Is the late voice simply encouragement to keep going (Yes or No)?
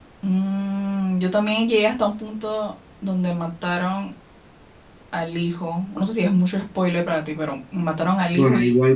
No